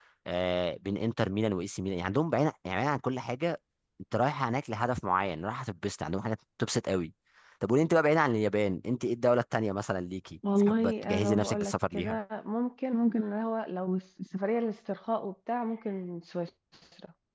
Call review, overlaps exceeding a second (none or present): present